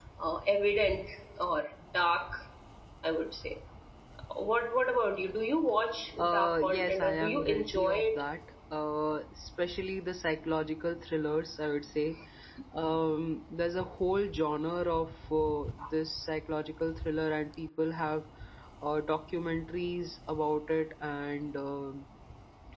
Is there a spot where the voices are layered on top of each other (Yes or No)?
Yes